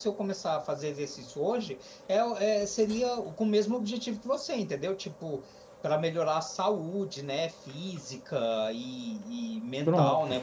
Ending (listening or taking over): listening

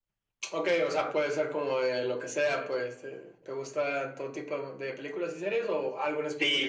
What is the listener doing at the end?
taking over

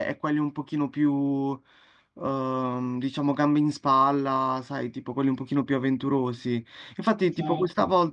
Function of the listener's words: listening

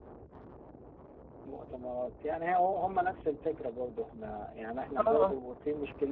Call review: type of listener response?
listening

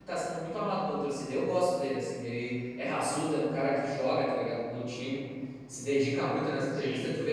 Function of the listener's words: listening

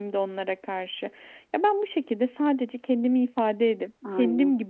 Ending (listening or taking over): listening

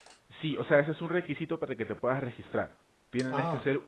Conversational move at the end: listening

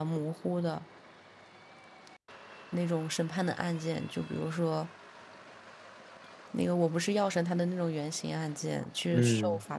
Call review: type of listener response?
listening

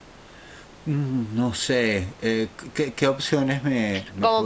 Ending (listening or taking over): taking over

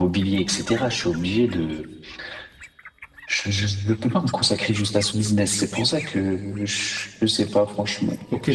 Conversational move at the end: taking over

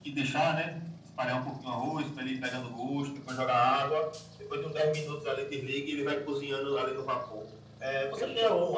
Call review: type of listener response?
listening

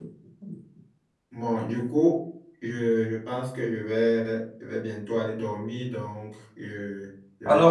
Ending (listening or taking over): taking over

